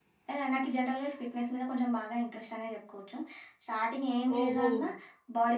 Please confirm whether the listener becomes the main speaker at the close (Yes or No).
No